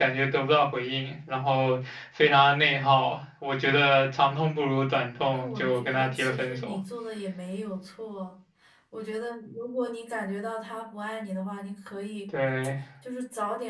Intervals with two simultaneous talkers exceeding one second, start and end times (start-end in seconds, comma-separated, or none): 5.2-6.8